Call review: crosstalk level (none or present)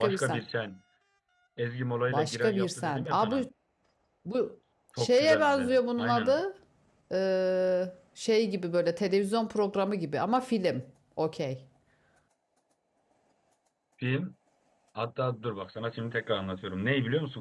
present